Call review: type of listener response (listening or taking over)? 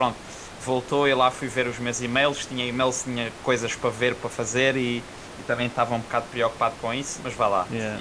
listening